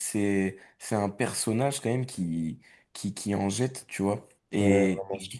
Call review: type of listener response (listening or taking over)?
listening